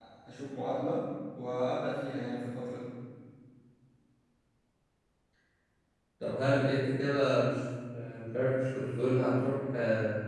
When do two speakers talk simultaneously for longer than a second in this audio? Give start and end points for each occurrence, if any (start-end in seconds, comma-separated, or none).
none